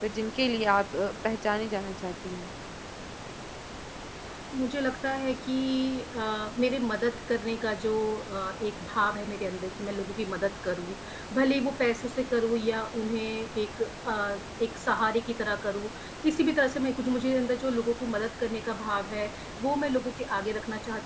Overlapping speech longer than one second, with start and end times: none

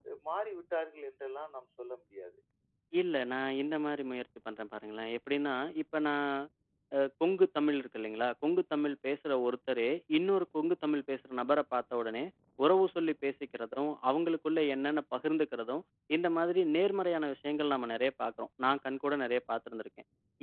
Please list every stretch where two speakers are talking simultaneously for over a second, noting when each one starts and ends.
none

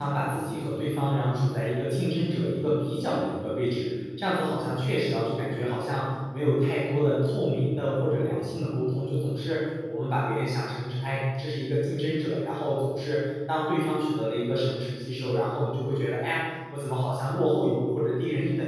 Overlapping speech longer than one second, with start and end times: none

